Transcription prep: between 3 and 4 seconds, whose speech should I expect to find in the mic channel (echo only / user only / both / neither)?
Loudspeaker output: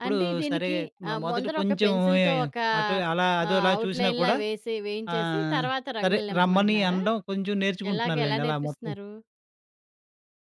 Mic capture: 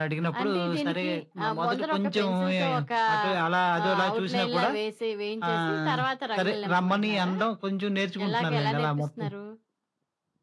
echo only